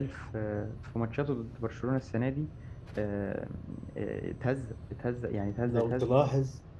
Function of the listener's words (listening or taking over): taking over